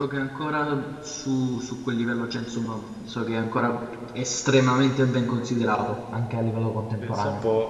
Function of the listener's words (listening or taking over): taking over